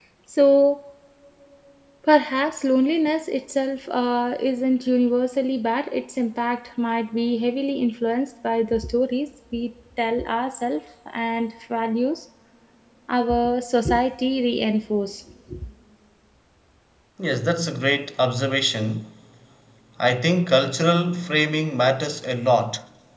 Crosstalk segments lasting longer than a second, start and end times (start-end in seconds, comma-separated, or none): none